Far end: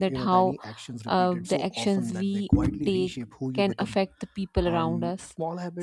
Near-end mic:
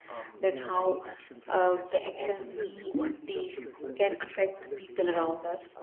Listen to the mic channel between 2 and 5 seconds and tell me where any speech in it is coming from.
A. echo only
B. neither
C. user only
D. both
D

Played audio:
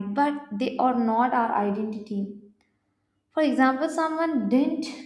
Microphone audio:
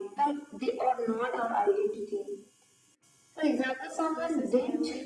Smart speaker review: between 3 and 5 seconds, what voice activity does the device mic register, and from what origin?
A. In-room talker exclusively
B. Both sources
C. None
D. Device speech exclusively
B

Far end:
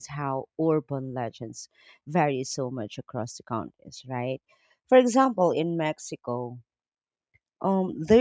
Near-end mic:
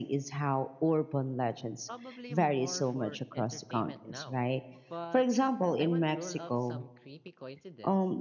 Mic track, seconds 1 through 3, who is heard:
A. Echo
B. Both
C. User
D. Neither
B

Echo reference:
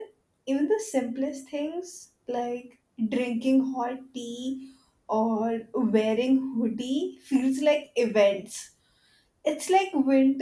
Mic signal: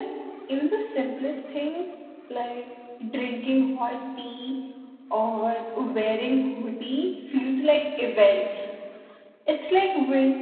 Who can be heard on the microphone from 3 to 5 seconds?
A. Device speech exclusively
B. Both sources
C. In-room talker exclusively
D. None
A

